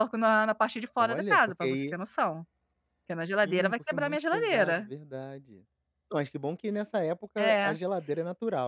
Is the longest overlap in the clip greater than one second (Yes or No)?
Yes